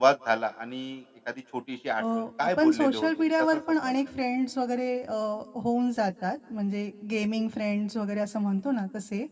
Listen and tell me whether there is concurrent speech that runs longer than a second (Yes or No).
Yes